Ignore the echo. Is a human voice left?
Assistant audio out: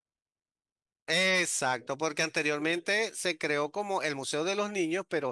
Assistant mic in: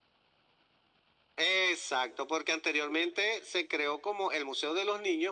No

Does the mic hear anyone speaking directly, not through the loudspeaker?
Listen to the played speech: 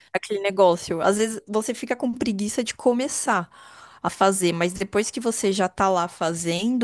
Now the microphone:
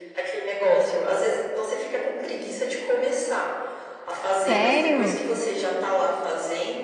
Yes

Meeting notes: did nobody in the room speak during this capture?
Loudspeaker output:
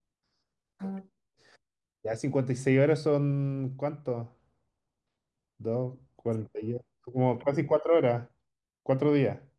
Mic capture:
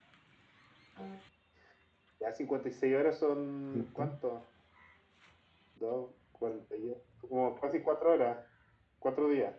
No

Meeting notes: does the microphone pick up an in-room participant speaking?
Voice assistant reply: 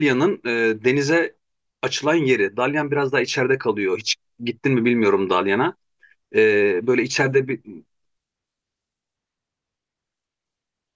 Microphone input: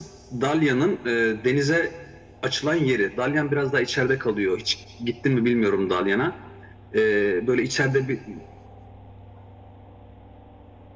No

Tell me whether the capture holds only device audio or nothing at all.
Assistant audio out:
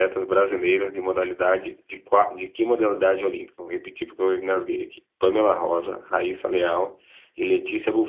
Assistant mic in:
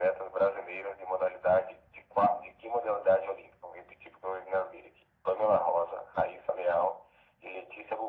Yes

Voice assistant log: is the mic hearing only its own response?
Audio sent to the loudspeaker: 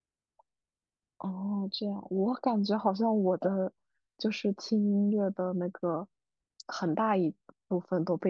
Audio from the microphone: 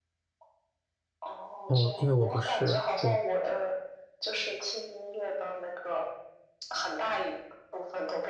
No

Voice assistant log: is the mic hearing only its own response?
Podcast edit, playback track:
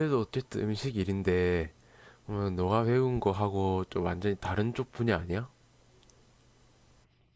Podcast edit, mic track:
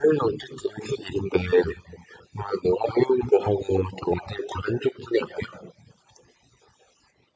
Yes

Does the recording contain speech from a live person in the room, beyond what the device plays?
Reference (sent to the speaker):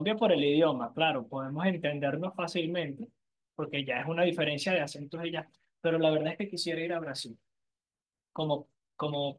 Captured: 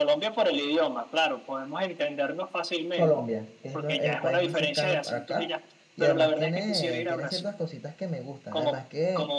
Yes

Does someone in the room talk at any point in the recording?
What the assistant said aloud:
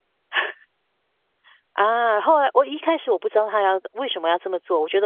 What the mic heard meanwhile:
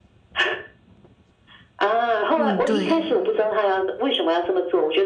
Yes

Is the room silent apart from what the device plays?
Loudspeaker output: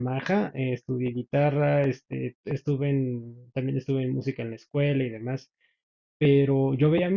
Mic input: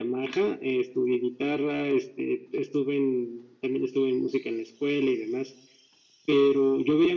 Yes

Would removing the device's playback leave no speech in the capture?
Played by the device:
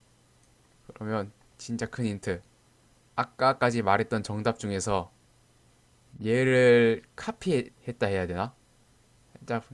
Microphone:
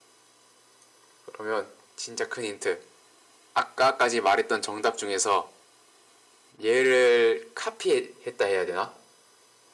Yes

